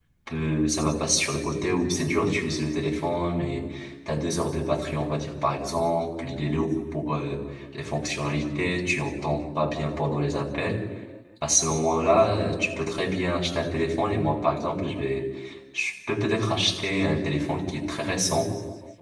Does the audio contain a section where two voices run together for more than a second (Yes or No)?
No